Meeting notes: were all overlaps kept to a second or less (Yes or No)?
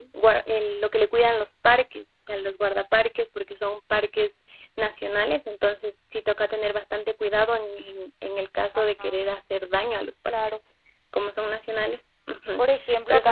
Yes